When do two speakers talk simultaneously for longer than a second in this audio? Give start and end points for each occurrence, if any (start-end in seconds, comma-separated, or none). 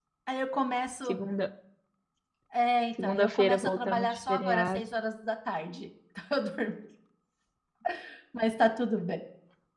3.0-4.8